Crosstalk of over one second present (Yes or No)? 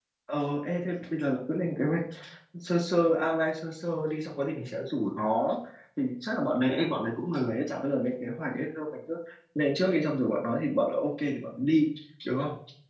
No